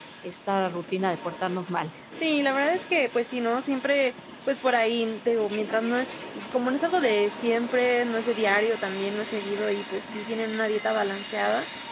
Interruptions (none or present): none